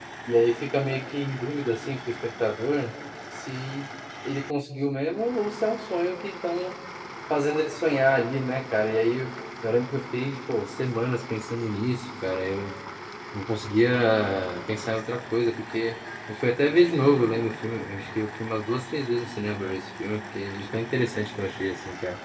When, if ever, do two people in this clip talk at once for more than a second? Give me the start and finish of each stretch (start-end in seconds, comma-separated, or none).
none